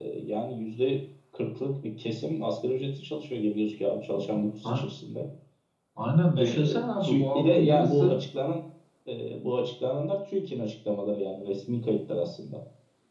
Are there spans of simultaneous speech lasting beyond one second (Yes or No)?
Yes